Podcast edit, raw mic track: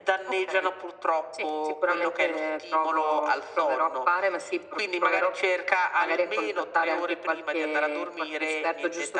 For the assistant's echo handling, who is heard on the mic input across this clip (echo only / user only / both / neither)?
echo only